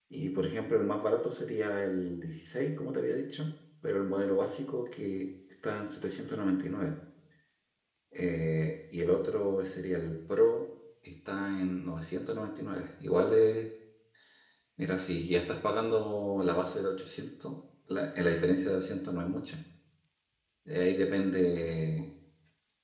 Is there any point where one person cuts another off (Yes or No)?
No